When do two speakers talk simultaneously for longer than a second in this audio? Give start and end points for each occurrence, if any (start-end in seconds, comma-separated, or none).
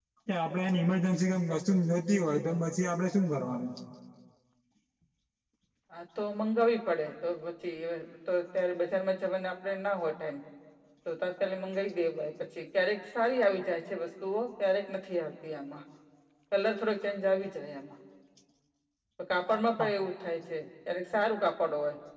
none